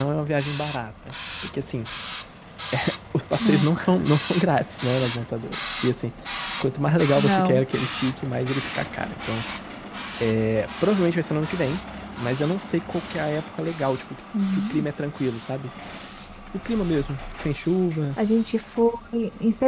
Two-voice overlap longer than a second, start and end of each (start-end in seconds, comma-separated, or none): none